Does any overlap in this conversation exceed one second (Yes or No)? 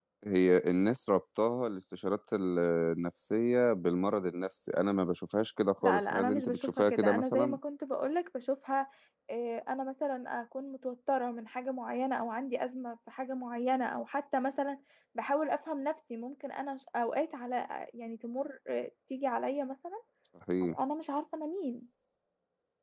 Yes